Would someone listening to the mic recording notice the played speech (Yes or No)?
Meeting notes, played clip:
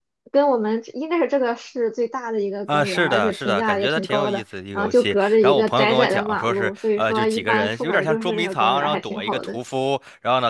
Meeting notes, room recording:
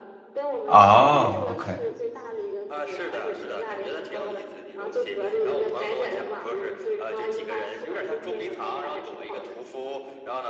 Yes